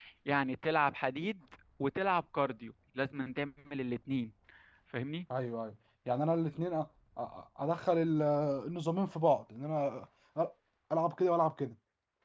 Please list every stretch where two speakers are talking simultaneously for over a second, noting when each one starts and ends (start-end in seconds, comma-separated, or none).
none